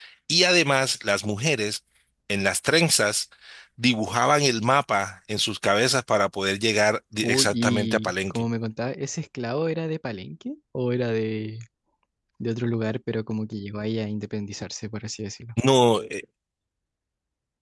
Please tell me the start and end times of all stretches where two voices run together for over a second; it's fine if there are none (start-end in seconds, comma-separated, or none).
7.2-8.4